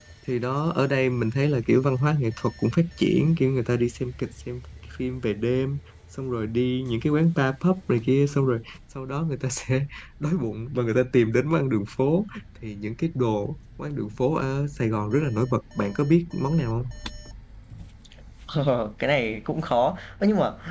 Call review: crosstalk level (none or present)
none